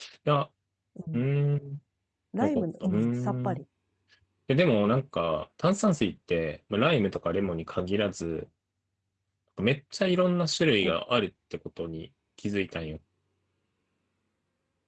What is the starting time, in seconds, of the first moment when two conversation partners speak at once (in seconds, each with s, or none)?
2.4 s